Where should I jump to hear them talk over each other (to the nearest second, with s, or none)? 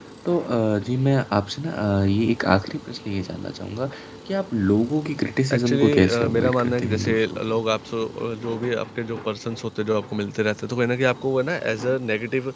6 s